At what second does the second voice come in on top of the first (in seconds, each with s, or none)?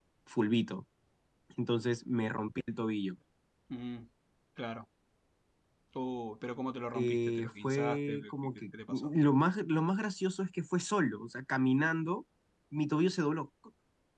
6.9 s